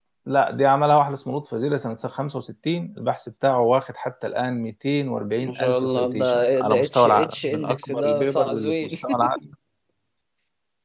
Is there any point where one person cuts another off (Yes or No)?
Yes